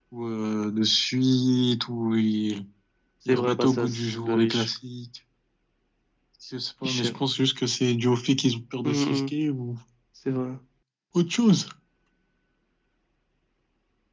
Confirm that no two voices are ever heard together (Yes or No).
No